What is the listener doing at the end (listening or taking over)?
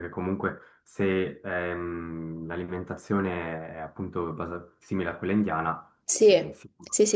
taking over